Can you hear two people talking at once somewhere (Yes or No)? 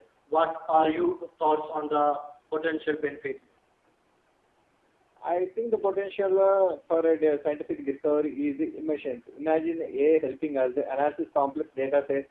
No